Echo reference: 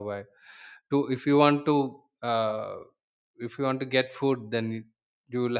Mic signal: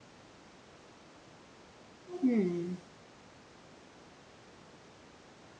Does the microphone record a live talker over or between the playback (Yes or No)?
Yes